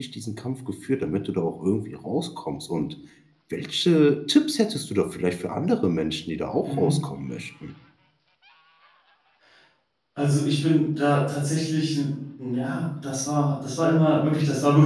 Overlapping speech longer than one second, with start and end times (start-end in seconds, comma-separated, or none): none